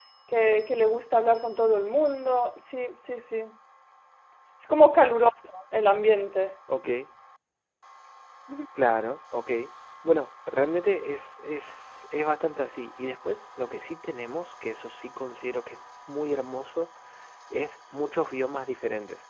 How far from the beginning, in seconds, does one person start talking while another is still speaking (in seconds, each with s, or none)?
none